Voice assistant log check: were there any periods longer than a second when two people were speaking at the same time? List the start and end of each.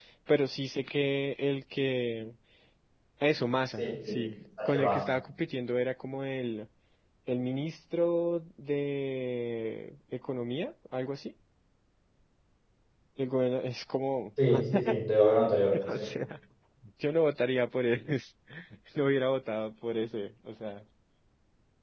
none

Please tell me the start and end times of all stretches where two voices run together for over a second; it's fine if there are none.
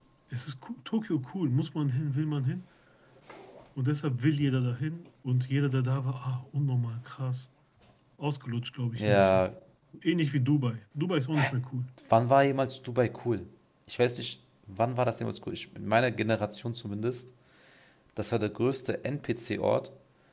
none

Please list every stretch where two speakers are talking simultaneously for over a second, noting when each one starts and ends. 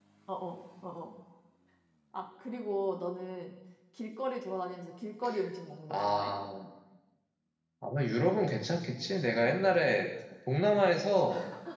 none

